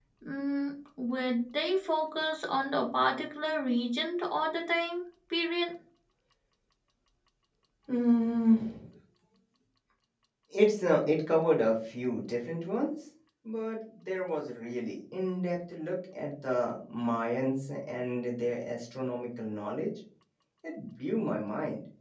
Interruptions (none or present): none